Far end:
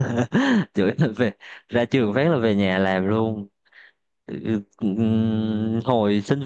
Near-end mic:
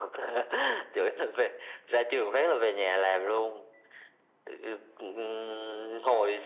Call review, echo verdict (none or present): present